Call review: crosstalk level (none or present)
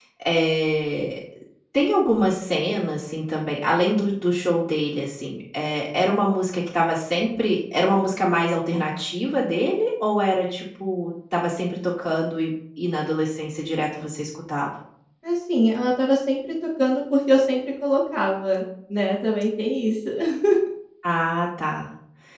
none